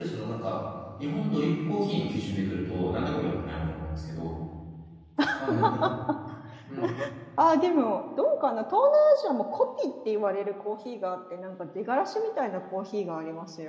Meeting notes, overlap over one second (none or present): none